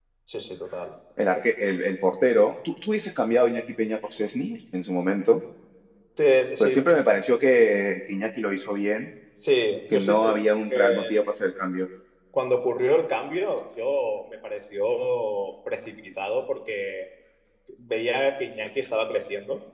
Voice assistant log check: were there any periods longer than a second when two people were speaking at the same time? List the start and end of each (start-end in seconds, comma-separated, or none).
9.9-11.1